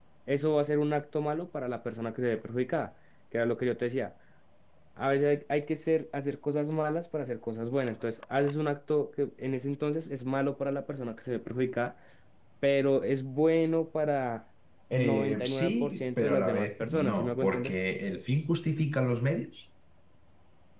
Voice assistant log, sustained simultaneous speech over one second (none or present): present